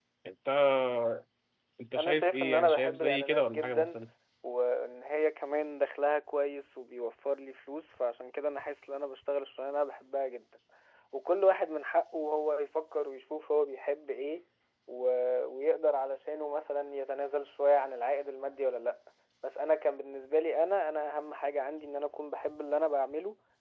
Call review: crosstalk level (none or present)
present